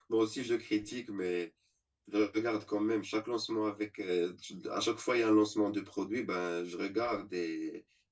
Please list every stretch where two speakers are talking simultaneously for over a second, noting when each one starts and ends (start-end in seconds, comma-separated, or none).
none